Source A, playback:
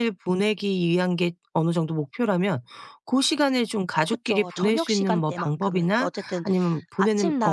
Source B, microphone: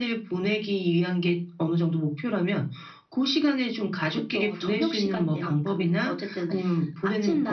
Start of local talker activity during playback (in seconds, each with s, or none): none